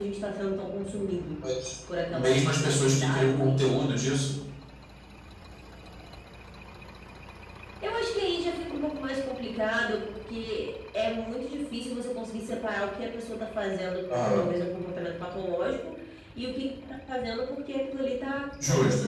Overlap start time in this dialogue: 2.1 s

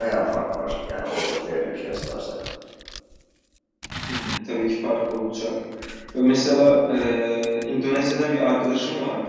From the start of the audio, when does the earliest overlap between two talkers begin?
none

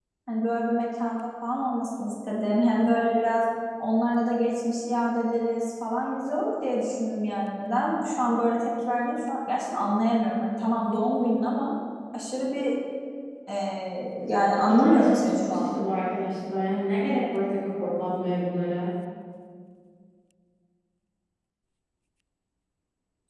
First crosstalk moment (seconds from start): 14.6 s

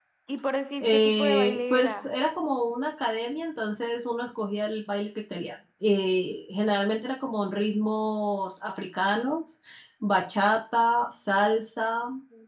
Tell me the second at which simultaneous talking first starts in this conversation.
0.8 s

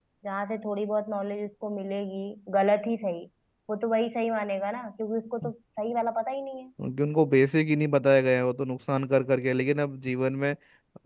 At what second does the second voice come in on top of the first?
none

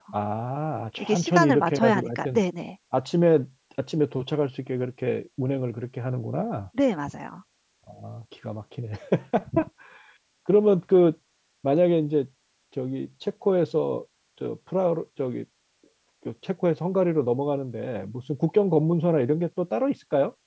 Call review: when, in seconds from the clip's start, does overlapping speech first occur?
1.0 s

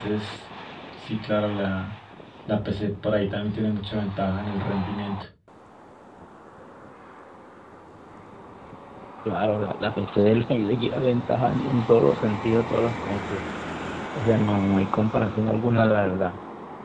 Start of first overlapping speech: none

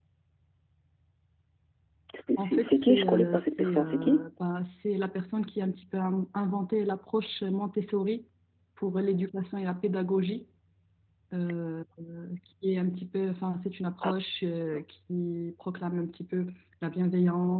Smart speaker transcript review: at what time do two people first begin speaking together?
2.4 s

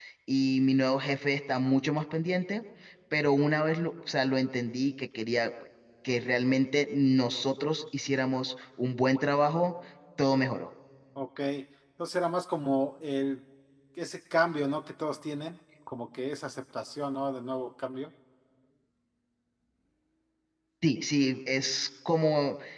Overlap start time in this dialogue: none

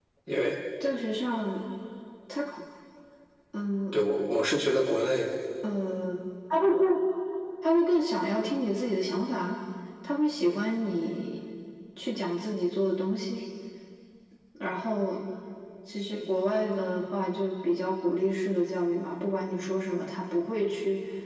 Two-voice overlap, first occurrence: none

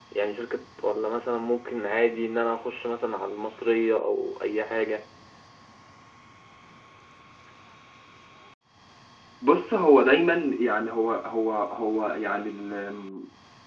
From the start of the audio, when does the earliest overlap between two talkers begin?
none

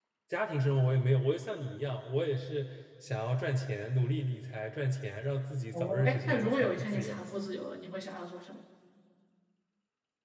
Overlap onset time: 5.7 s

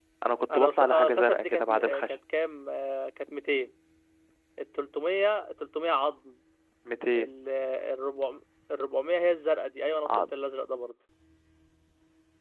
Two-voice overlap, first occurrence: 0.5 s

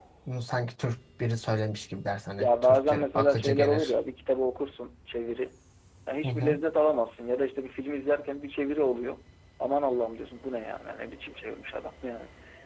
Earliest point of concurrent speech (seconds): 2.4 s

